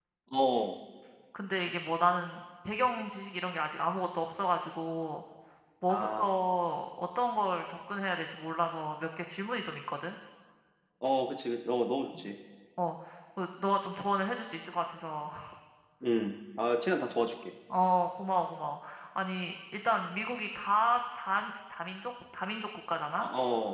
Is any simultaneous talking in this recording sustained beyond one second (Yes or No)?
No